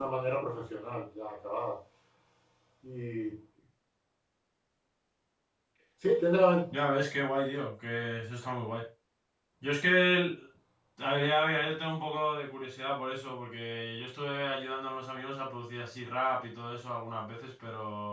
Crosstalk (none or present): none